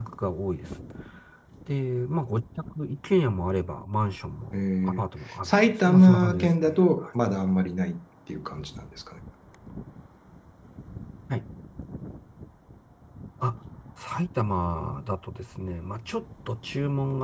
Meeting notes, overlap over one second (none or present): present